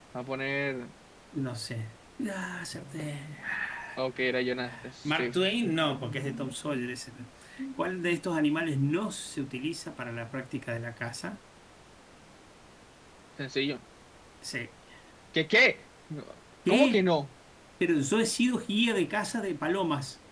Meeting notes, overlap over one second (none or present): none